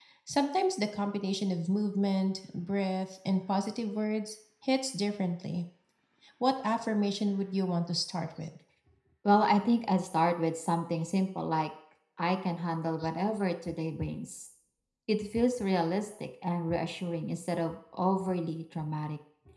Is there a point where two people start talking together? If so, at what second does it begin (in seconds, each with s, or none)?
none